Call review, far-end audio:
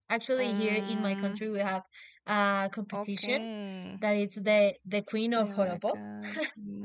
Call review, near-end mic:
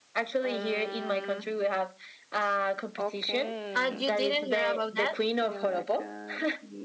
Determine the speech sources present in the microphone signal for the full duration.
both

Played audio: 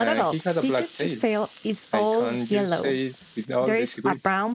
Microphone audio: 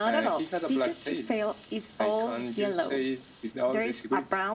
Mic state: echo only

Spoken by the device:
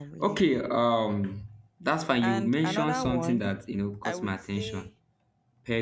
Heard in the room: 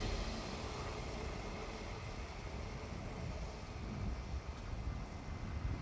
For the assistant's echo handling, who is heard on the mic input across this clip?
neither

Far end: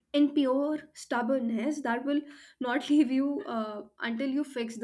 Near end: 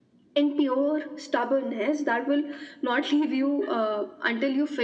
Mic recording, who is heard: echo only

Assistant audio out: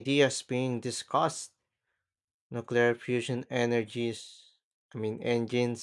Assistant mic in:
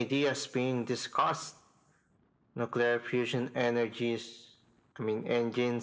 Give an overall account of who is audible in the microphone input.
echo only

